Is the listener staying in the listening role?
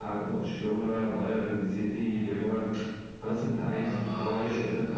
No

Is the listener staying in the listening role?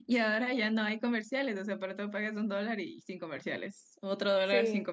Yes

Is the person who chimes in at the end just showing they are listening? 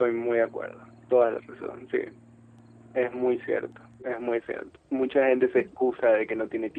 Yes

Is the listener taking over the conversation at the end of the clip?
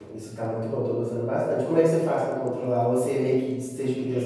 Yes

